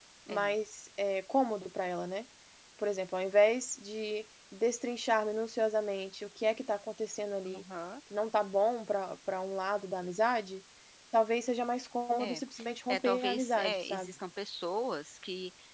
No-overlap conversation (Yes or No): No